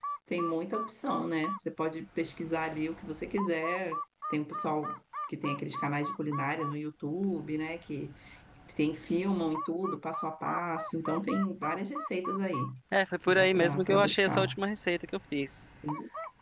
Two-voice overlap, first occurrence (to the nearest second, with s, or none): 13 s